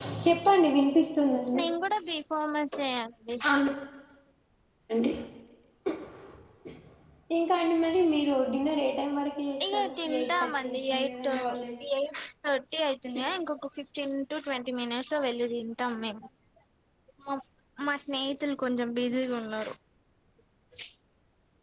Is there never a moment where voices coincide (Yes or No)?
No